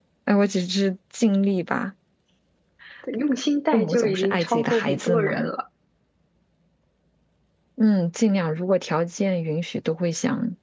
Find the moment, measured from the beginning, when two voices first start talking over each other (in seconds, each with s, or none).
3.7 s